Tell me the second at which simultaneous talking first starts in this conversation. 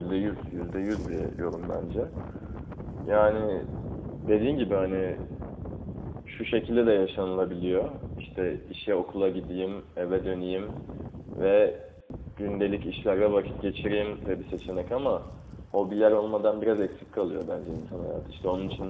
none

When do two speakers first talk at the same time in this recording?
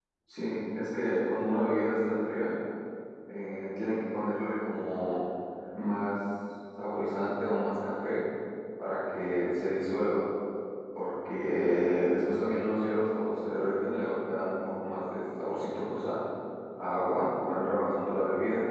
none

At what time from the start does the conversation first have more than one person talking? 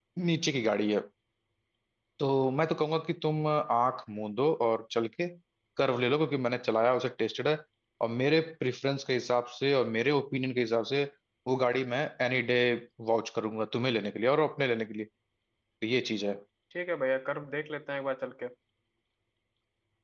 none

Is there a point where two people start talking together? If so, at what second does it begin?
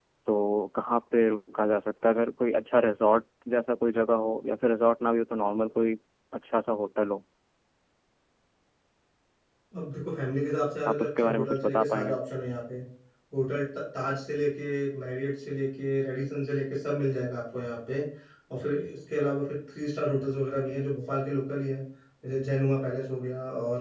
10.8 s

